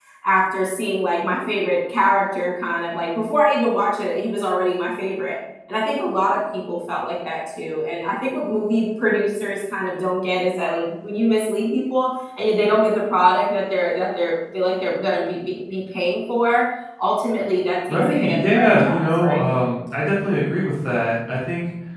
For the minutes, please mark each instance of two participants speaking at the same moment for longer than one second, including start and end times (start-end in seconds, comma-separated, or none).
17.9-19.4